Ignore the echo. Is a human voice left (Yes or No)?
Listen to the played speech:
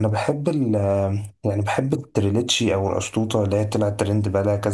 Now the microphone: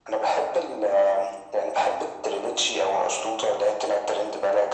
No